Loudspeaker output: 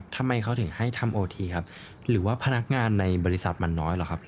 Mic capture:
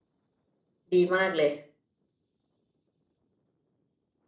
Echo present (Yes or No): No